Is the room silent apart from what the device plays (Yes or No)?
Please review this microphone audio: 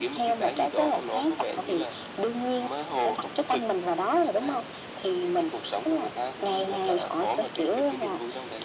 Yes